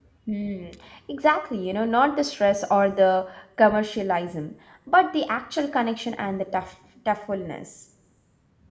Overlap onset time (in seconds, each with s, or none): none